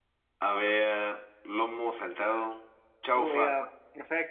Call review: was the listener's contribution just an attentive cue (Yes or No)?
No